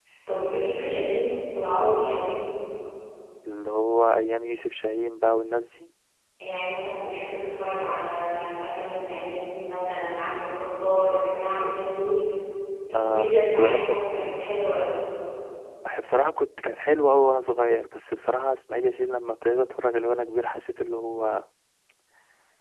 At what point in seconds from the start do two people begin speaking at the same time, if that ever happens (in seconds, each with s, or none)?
12.9 s